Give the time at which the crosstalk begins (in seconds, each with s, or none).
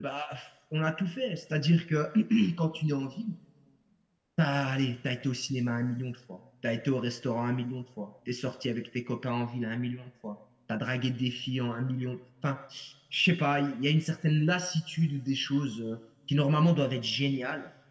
none